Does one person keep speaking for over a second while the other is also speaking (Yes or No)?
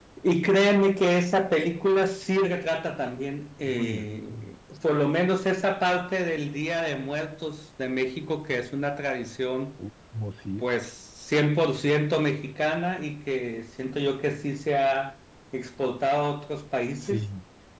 No